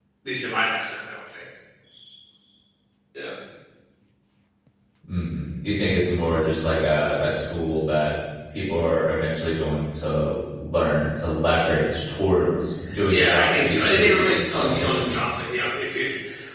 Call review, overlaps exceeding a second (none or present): present